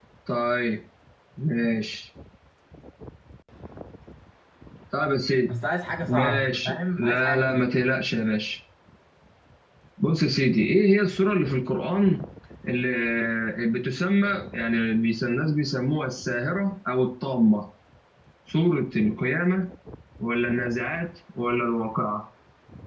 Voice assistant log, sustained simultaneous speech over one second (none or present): present